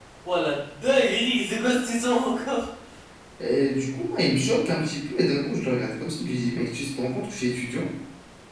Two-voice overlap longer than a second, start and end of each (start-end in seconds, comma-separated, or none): none